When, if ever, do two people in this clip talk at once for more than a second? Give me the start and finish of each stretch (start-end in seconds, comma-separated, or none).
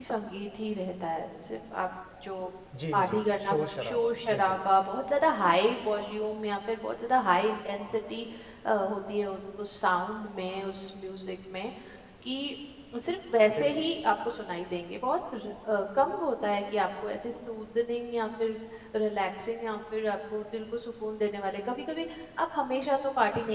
2.9-4.6